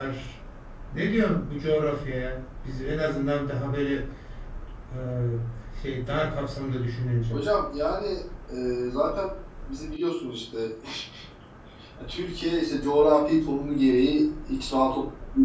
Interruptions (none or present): none